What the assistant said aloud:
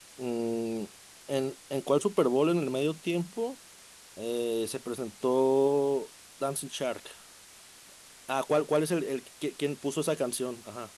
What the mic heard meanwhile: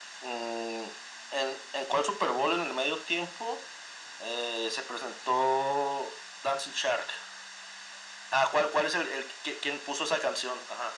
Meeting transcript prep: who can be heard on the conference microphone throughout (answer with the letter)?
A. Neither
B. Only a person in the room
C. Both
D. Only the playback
D